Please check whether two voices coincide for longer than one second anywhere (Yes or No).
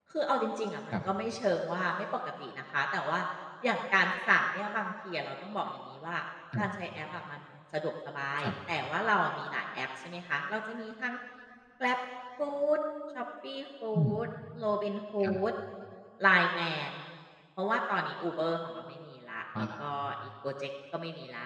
No